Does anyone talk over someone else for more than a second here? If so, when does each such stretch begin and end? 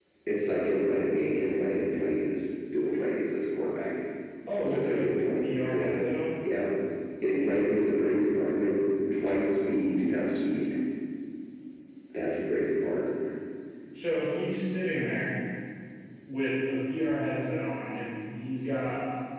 4.7-5.9

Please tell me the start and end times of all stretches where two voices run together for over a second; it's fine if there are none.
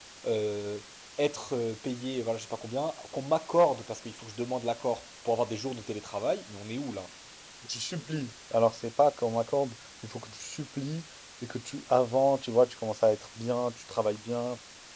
none

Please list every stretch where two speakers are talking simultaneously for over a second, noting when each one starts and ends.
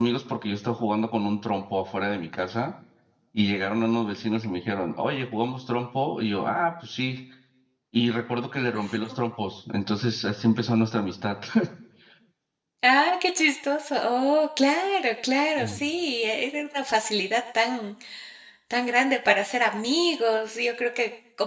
none

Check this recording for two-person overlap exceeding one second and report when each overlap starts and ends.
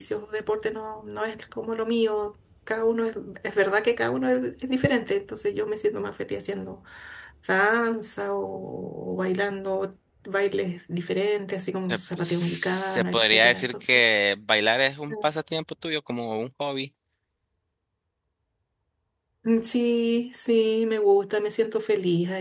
11.8-14.0

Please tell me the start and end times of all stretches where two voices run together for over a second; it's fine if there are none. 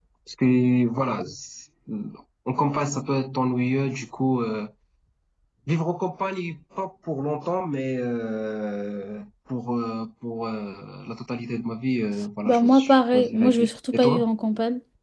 12.5-14.2

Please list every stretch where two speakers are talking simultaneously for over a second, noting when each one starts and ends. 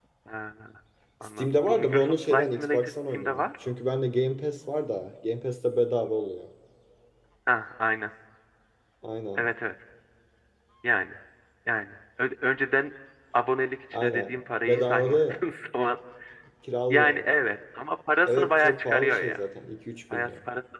1.2-3.5, 13.9-15.4, 18.2-19.4

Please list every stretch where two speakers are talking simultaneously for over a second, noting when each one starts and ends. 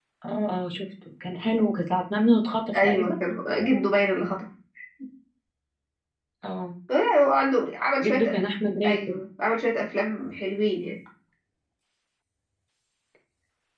none

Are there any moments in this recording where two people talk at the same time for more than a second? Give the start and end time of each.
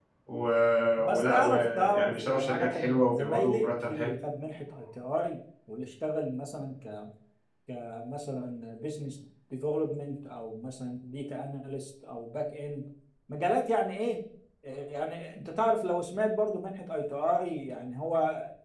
1.0-4.1

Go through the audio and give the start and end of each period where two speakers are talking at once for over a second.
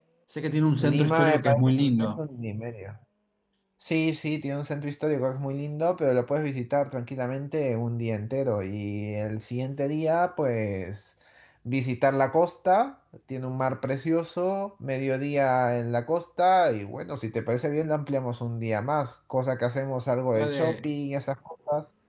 0.8-2.2

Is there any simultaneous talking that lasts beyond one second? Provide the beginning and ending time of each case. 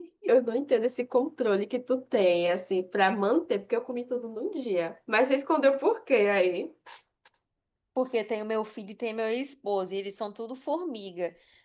none

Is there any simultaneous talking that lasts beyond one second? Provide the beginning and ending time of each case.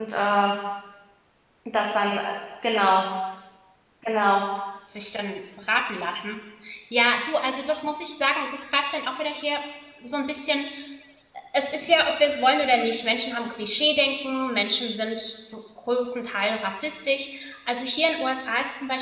none

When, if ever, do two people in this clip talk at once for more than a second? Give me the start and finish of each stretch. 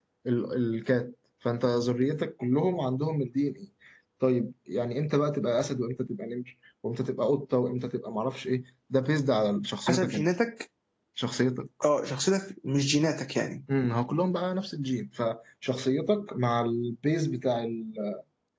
none

